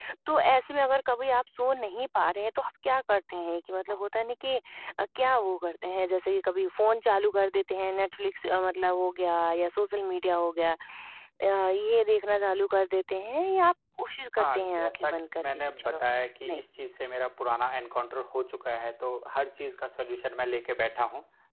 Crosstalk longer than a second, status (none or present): present